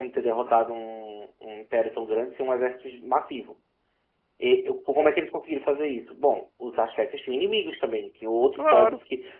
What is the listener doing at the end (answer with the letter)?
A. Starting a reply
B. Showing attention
B